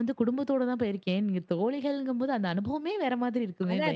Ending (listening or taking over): taking over